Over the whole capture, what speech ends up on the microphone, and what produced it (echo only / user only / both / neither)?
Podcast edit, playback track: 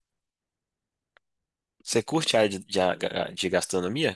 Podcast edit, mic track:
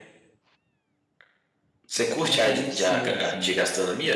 both